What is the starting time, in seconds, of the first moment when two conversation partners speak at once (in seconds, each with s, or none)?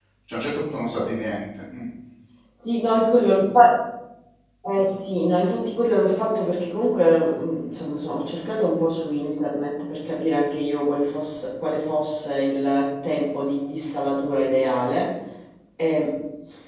none